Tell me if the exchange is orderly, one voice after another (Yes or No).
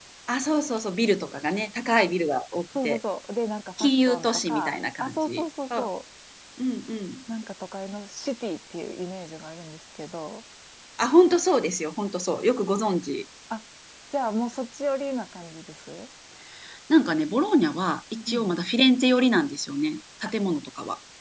No